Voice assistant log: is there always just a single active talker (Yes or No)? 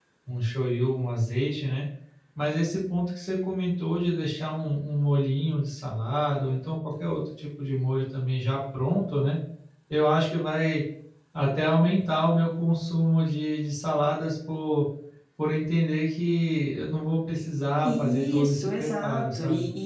No